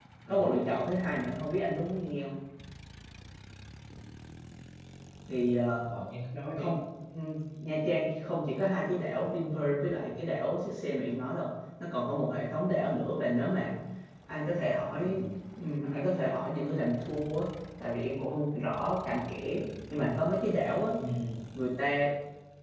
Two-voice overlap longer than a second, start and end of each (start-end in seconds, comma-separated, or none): none